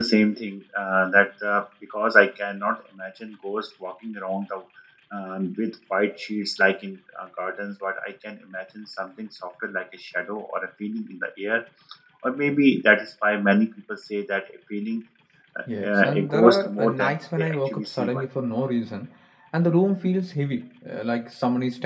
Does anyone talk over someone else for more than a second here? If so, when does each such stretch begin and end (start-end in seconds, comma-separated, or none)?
15.8-18.2